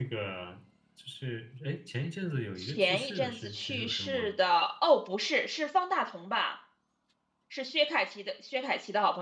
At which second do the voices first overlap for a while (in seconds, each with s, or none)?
2.6 s